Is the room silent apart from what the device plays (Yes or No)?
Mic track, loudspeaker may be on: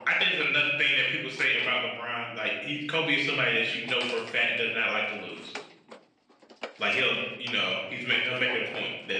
Yes